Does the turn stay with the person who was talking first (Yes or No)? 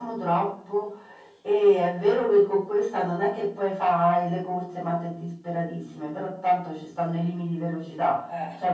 Yes